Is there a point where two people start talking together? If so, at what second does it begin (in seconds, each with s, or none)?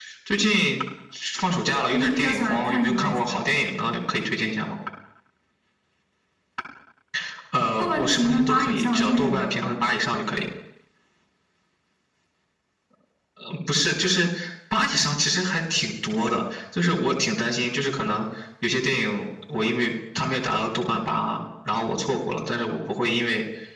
1.9 s